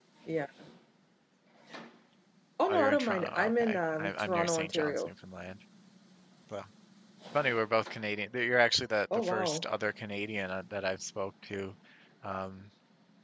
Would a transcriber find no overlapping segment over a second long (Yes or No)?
No